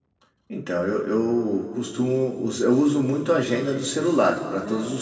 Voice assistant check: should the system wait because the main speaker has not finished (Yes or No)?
No